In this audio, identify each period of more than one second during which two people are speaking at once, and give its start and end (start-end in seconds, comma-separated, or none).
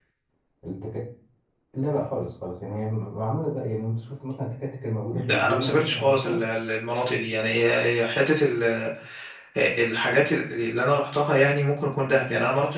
5.1-6.5